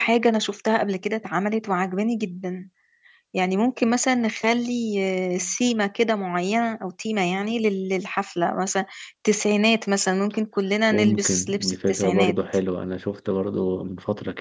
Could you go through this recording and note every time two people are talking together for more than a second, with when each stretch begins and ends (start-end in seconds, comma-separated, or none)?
10.9-12.4